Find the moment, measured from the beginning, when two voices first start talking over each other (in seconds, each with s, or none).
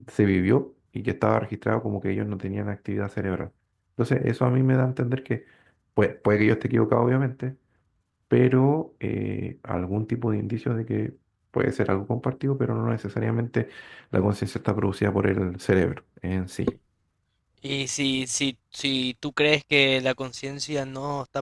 none